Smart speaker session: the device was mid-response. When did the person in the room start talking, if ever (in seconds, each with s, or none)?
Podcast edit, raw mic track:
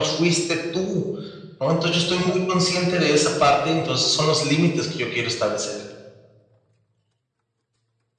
none